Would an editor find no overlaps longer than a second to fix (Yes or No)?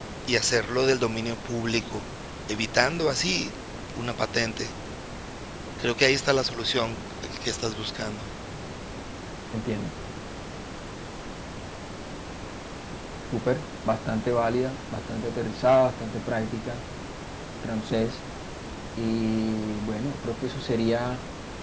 Yes